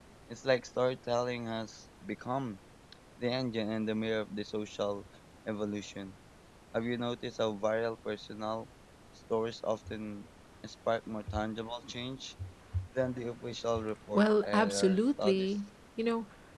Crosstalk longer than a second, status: present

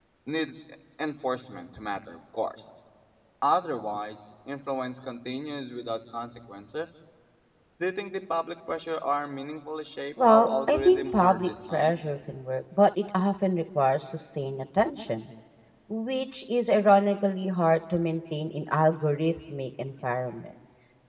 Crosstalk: present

